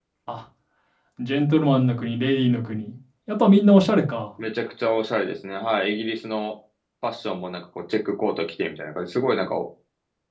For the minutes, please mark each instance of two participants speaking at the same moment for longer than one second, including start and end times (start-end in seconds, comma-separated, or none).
none